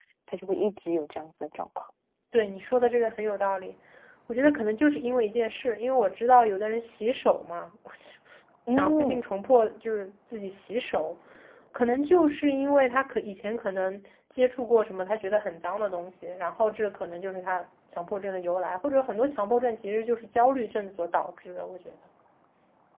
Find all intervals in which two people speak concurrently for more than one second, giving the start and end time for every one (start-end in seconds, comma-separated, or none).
none